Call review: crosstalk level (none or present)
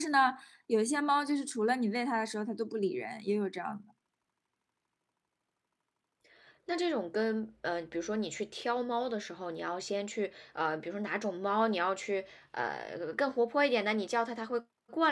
none